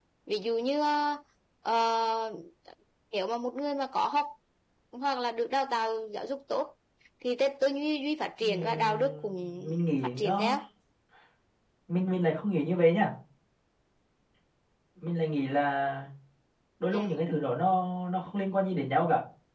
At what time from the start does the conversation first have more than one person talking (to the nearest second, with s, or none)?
8 s